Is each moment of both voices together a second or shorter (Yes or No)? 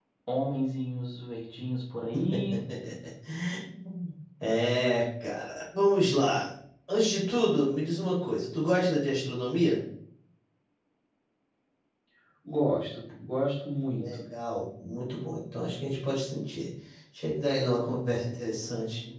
Yes